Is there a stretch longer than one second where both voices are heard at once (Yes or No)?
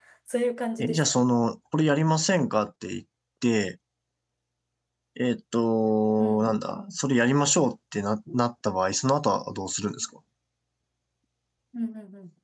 No